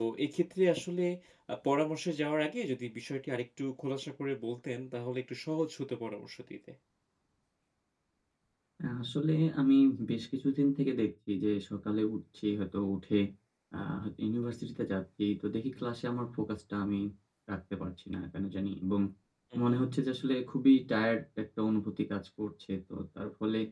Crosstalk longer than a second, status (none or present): none